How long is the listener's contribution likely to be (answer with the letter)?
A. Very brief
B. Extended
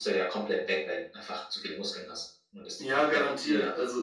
B